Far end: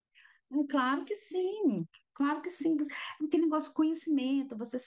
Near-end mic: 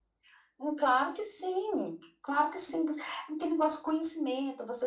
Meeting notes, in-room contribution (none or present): none